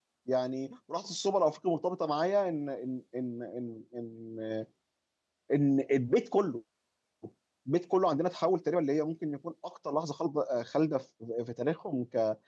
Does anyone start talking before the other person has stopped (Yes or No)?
No